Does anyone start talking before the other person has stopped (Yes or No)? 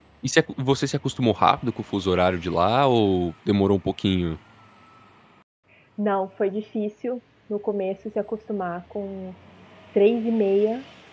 No